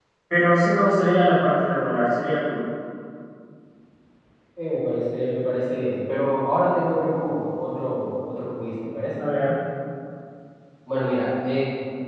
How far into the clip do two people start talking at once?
none

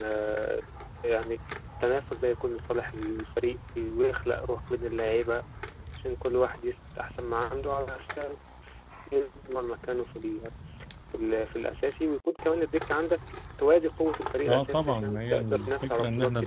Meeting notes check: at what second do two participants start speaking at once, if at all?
14.4 s

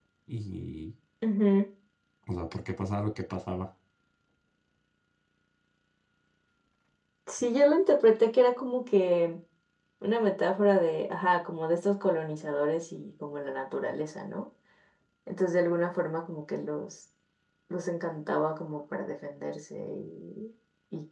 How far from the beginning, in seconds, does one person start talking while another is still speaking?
none

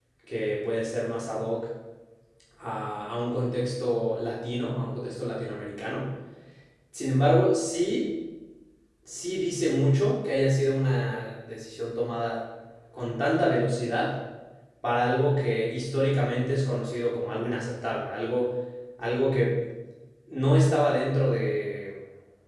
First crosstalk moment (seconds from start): none

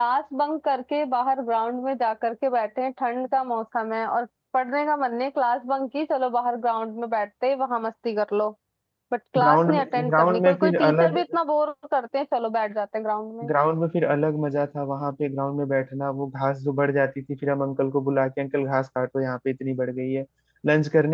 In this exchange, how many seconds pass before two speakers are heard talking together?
9.4 s

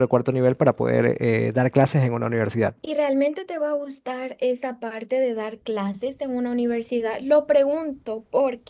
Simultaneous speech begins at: none

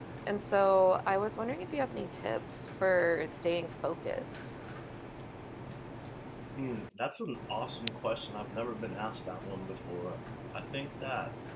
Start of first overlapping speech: none

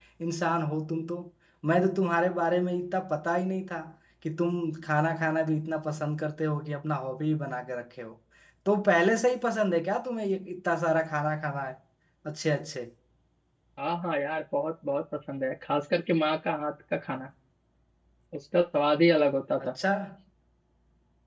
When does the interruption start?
none

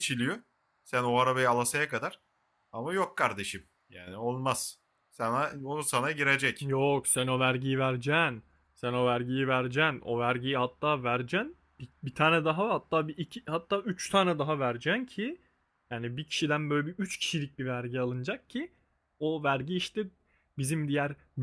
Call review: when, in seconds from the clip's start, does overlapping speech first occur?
none

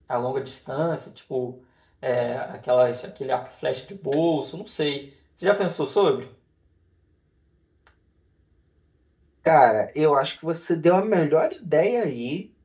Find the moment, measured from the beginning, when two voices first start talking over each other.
none

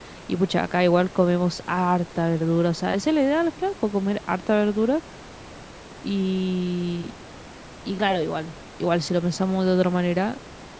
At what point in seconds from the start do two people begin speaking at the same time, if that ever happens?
none

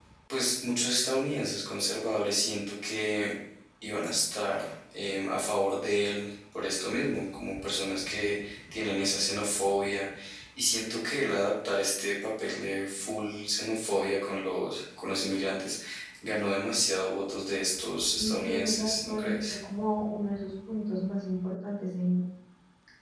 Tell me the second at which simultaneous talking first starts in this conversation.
18.2 s

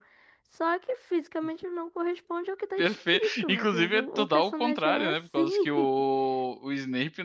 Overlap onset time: 2.8 s

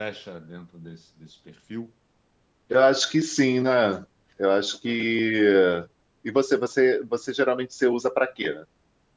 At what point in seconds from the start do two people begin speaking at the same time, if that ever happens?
none

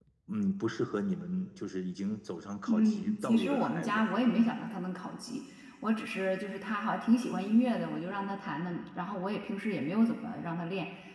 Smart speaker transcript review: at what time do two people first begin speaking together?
2.7 s

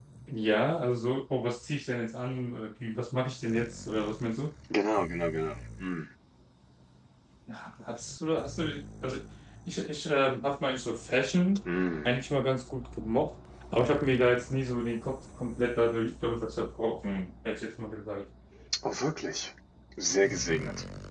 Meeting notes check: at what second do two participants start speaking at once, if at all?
none

